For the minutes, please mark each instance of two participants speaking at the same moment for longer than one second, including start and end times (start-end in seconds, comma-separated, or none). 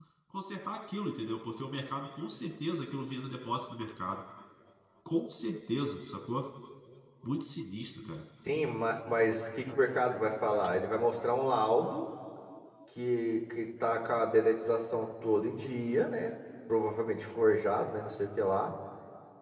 none